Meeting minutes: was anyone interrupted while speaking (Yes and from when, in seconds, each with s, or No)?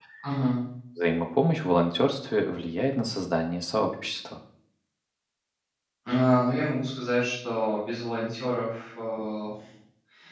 No